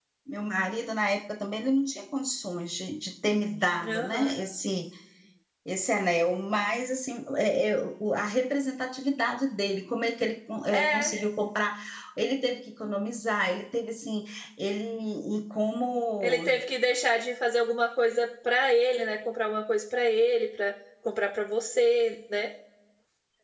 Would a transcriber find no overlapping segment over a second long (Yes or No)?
Yes